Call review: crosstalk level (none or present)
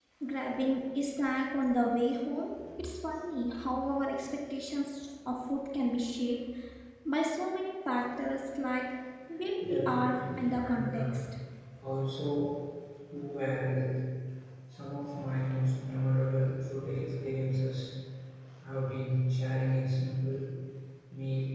present